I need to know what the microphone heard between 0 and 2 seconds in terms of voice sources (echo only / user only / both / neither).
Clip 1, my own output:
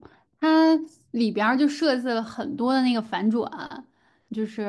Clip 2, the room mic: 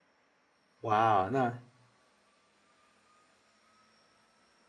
user only